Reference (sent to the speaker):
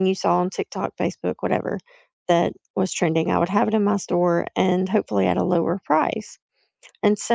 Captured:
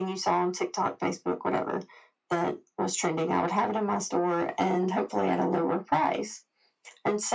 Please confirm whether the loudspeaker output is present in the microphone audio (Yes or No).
Yes